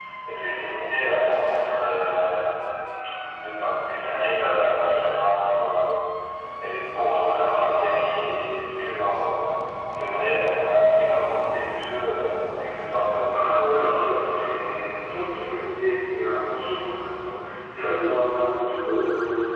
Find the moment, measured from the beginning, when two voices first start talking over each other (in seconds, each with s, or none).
13.3 s